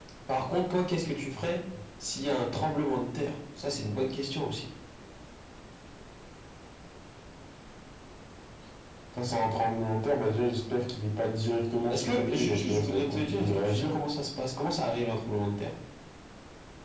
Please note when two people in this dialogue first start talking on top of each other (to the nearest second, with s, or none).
12 s